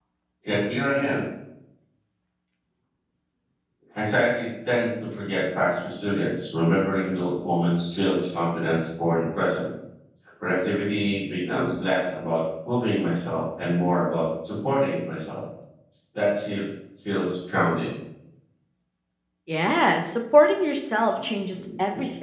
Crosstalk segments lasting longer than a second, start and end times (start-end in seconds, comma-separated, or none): none